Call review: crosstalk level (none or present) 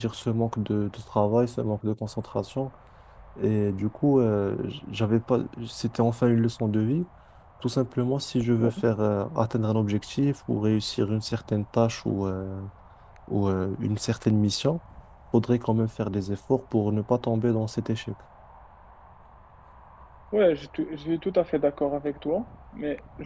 none